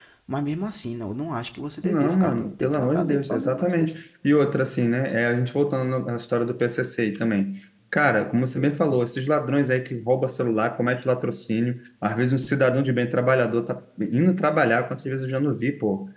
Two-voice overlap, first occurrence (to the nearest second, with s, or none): 2 s